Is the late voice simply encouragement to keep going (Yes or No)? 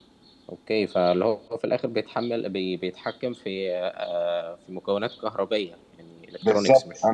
No